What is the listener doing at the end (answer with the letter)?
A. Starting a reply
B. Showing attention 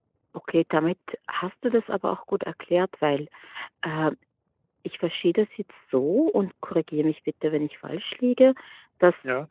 B